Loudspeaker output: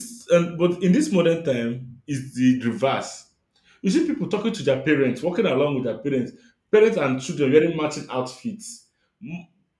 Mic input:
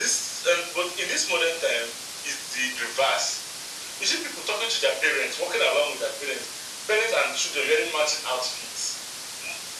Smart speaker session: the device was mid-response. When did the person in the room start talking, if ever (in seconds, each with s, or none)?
none